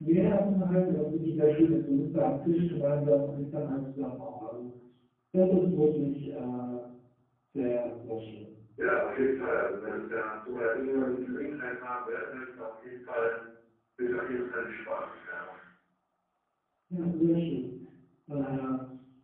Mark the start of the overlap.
none

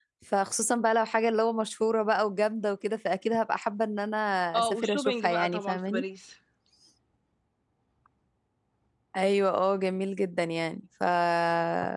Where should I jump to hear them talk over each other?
4.6 s

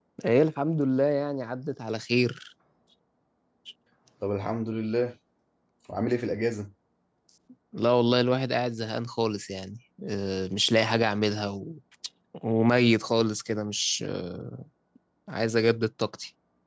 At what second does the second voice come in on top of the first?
none

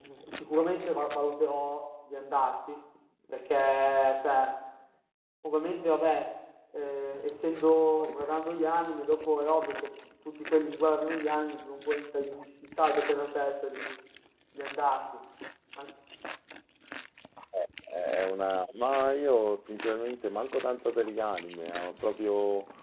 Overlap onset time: none

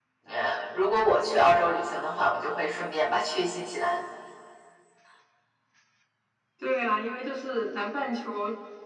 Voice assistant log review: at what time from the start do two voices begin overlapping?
none

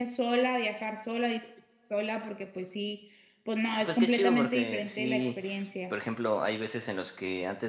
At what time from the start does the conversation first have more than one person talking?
3.8 s

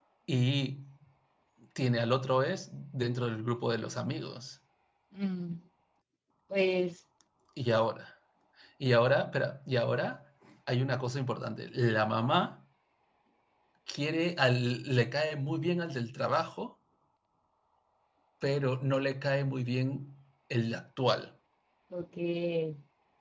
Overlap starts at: none

